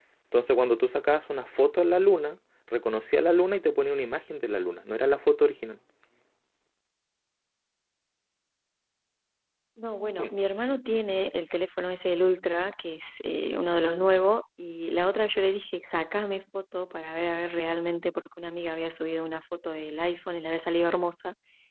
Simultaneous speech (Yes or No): No